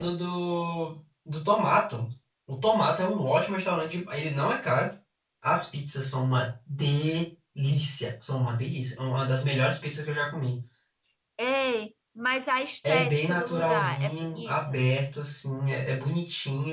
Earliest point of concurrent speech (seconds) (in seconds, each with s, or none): 12.8 s